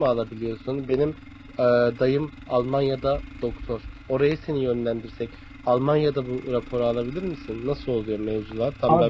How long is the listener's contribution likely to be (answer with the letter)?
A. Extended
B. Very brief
A